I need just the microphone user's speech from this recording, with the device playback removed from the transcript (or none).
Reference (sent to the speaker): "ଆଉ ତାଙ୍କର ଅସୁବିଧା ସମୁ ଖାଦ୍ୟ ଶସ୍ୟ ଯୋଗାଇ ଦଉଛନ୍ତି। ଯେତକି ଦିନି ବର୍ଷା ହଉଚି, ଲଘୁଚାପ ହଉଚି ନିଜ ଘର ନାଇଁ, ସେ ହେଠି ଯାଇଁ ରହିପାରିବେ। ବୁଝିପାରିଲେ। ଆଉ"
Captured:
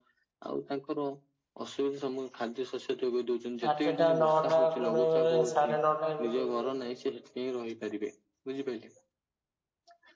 ଆଠଟା, ନଅଟା କଣ ବେଳେ ସାଢେ ନଅଟା ଏମିତି ହେଇଯାଉଚି।